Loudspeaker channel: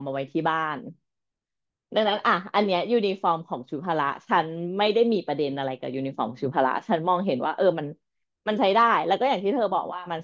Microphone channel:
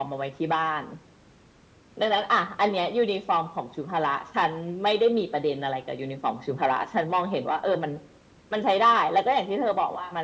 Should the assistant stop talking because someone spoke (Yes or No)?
No